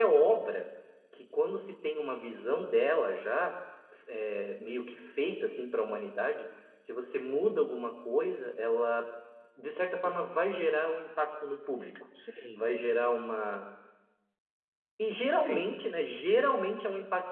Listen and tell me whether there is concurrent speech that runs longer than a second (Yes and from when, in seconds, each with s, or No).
No